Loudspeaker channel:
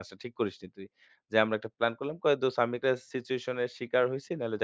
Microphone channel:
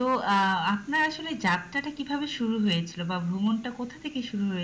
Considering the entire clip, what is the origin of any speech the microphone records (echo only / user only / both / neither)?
user only